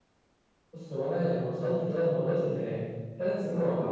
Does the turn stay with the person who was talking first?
Yes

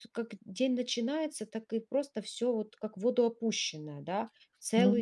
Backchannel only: No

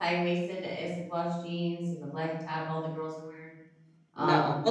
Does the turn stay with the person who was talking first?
No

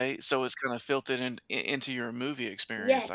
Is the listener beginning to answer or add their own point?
Yes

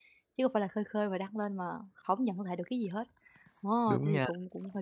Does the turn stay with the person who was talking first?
Yes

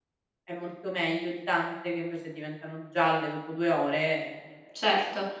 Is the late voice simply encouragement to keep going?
No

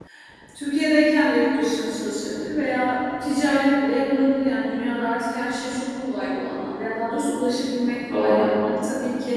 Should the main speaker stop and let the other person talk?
No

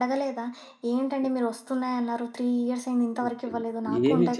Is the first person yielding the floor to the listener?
Yes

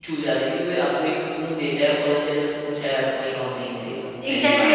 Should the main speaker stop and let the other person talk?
Yes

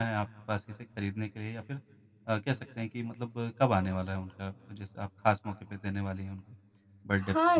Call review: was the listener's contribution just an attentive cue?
No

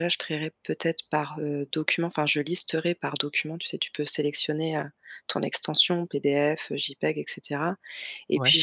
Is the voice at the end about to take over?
No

